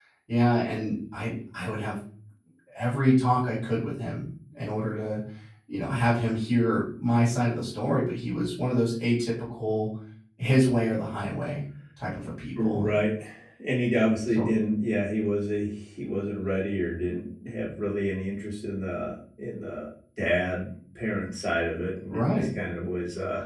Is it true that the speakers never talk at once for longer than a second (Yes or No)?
Yes